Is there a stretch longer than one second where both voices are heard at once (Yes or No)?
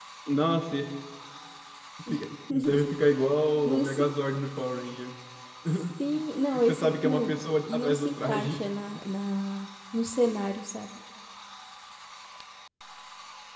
Yes